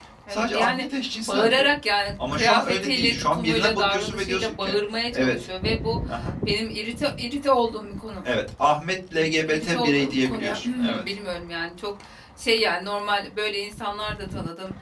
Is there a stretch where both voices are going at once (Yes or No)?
Yes